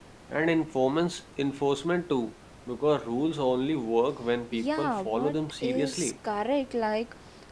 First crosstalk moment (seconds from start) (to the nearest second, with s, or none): 5 s